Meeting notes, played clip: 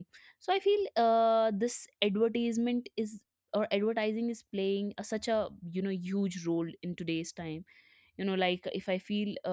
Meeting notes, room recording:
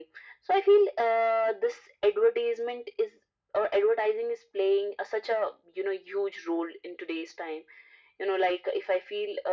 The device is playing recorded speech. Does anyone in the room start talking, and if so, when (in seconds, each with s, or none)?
none